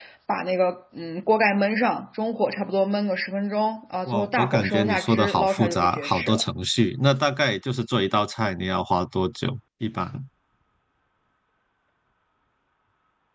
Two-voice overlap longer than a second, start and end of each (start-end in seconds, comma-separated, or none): 4.1-6.4